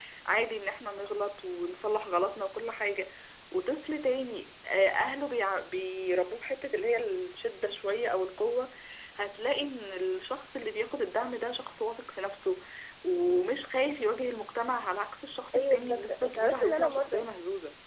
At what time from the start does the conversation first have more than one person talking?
15.5 s

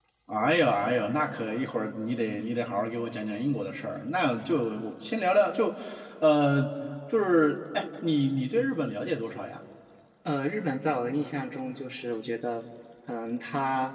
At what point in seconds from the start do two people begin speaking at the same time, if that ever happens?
none

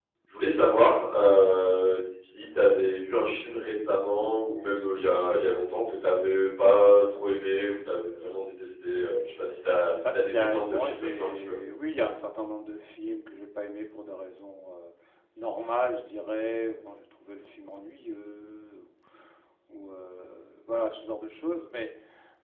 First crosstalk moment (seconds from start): 9.9 s

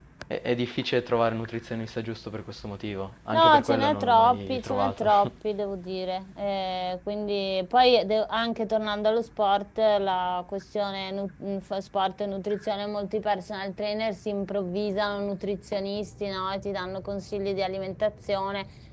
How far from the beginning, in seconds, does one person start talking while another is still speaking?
3.3 s

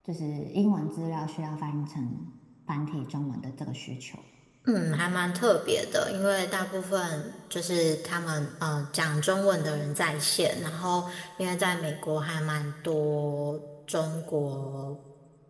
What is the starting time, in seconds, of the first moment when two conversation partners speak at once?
none

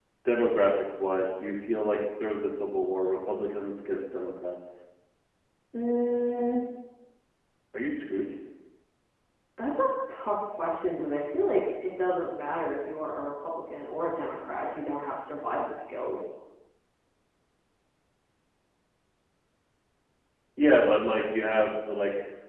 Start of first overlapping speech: none

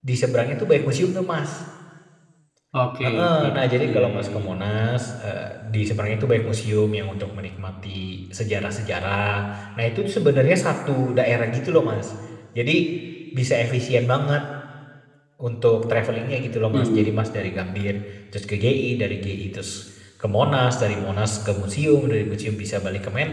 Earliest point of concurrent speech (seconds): 3.0 s

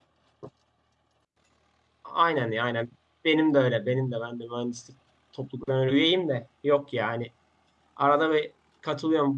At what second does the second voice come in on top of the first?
none

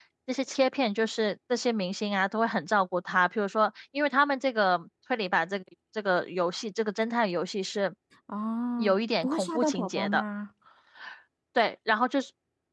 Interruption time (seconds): 8.8 s

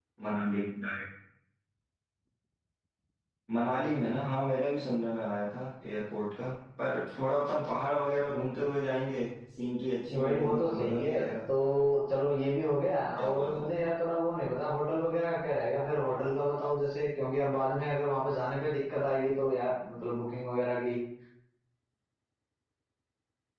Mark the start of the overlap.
10.1 s

